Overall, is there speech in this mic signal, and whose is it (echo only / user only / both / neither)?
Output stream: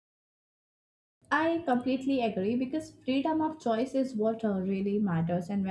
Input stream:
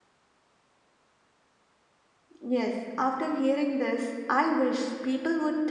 user only